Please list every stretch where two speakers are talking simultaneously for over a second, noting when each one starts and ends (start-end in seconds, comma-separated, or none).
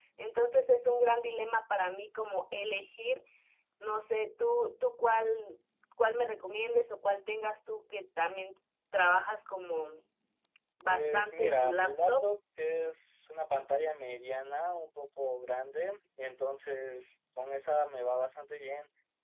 10.8-12.2